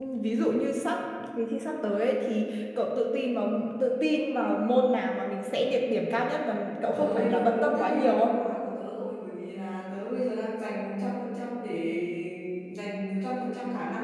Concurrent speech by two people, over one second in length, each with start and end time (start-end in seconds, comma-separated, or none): 6.9-8.4